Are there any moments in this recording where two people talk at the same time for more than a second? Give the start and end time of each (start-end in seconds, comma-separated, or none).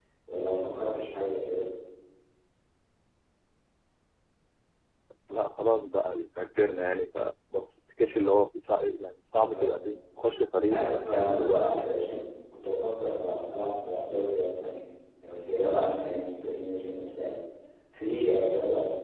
10.6-11.9